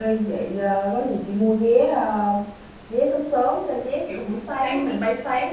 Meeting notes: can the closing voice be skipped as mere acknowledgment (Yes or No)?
Yes